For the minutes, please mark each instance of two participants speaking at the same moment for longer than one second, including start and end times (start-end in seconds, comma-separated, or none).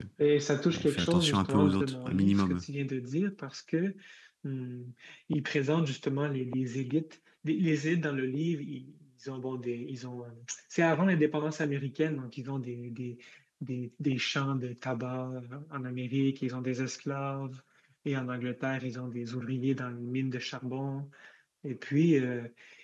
0.7-2.6